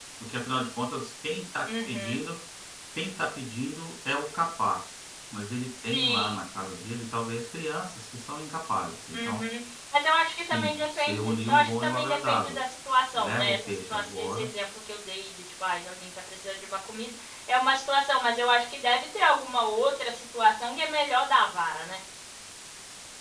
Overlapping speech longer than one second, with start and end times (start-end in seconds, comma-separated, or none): 10.3-12.6, 13.1-14.5